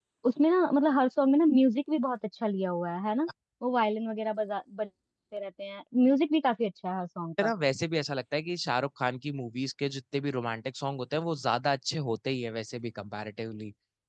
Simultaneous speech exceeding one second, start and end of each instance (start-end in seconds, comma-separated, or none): none